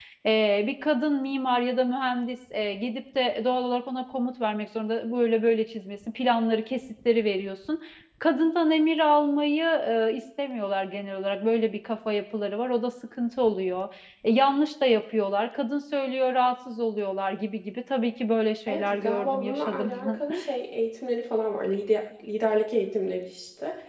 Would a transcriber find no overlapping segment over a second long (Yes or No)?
No